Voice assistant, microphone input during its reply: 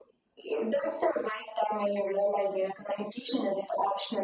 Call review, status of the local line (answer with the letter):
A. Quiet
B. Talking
A